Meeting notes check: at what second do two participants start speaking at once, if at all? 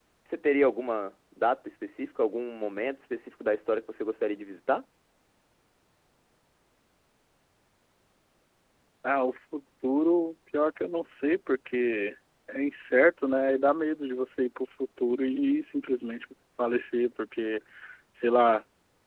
none

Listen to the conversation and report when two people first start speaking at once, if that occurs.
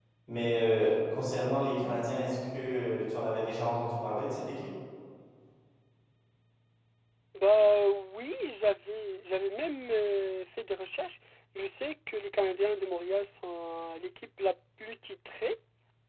none

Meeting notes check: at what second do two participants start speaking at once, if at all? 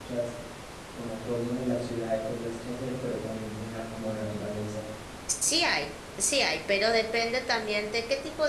none

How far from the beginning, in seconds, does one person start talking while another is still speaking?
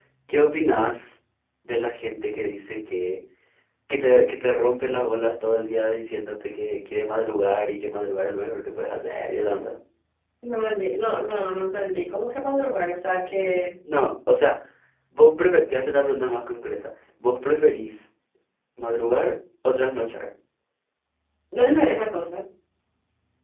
none

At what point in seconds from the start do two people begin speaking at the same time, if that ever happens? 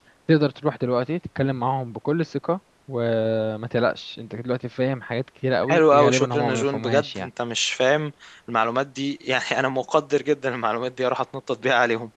5.6 s

